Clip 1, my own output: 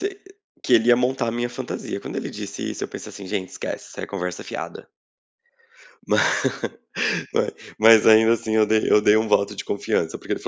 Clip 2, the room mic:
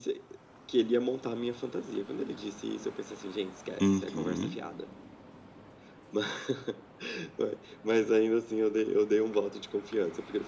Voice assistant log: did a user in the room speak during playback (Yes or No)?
Yes